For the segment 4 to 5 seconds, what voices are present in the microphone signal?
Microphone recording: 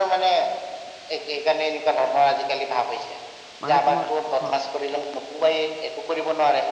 both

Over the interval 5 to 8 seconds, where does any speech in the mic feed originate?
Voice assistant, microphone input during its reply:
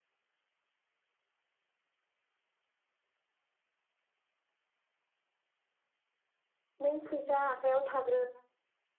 user only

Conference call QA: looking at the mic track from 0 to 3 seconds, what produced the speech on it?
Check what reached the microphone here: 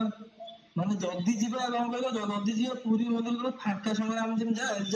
echo only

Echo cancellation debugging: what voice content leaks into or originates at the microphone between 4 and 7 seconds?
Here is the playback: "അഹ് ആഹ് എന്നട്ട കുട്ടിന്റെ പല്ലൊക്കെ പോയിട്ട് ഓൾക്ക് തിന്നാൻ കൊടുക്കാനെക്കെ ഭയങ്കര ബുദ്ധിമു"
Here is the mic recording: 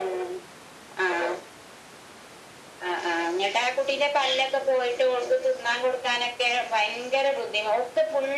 echo only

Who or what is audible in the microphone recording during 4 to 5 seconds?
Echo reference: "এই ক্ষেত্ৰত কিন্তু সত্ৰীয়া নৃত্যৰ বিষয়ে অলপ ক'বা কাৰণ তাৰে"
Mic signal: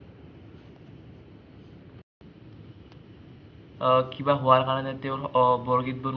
user only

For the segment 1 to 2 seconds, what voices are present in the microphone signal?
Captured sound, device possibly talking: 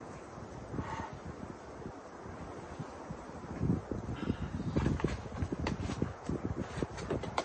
neither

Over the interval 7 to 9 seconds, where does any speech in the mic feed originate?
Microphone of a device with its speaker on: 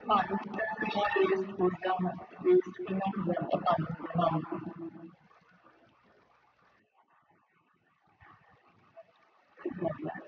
neither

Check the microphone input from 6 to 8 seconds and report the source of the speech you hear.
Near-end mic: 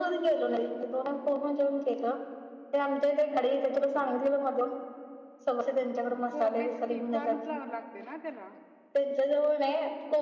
both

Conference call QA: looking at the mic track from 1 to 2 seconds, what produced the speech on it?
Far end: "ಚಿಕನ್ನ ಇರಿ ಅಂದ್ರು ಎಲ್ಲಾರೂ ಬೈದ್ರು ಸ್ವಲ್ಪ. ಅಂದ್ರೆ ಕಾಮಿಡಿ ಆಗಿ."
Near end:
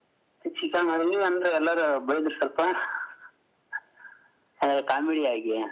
echo only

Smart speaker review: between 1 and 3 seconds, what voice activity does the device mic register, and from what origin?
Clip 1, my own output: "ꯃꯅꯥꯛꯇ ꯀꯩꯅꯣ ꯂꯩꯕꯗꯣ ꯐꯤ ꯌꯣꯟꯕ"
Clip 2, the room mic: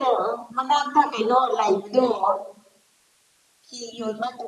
echo only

